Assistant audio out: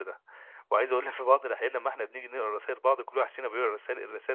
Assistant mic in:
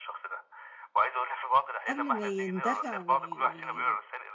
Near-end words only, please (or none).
قبل ما يندفع وي وي